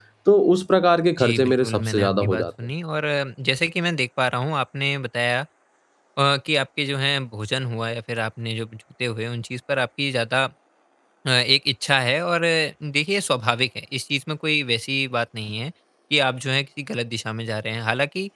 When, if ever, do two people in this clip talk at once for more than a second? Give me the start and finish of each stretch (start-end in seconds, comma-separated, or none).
1.2-2.4